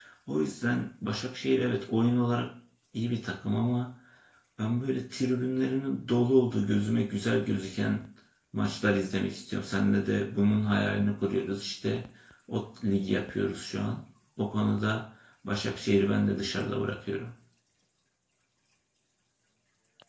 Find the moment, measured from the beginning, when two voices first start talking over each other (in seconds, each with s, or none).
none